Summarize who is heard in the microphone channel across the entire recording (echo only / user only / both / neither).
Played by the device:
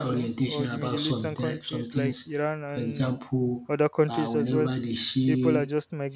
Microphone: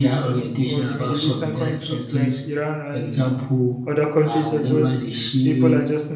echo only